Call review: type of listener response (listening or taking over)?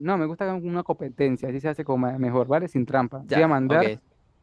listening